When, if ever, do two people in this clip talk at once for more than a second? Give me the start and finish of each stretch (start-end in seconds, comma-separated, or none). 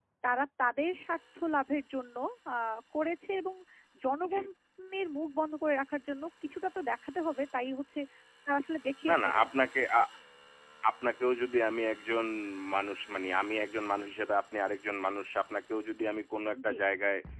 none